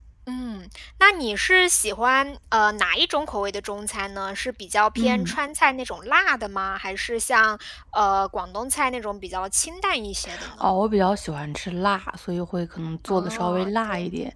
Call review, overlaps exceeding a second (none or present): present